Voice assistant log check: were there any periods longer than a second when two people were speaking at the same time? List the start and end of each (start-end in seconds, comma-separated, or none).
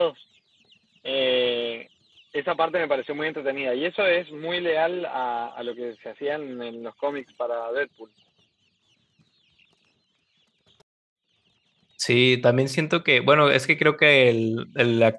none